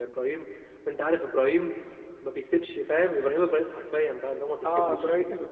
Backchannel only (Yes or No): No